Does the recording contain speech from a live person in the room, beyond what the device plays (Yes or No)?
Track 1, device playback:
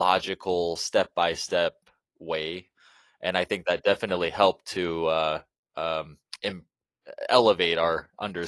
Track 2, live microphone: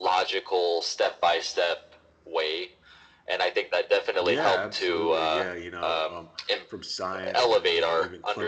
Yes